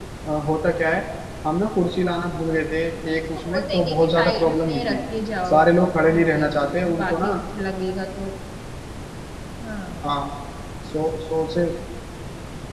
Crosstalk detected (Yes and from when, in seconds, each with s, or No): Yes, from 3.1 s